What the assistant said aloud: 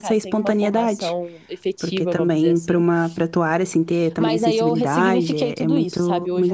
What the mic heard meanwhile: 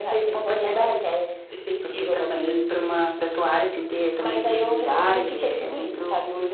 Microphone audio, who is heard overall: echo only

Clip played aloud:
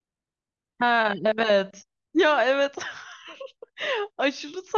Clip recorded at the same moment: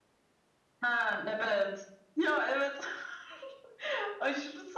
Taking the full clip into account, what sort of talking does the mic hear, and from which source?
echo only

